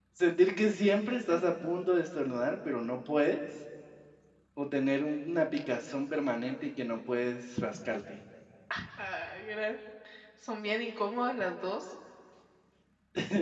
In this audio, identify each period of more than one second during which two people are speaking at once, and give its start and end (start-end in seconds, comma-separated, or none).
none